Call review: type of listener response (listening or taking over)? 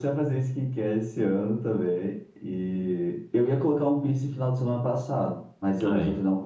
listening